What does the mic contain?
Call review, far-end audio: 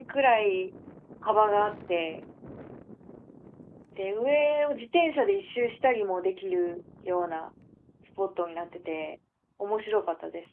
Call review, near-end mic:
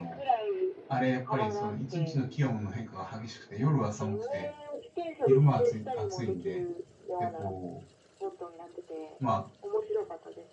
both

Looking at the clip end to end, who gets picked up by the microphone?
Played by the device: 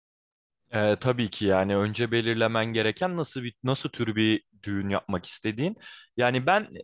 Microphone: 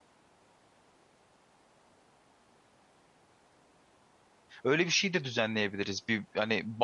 user only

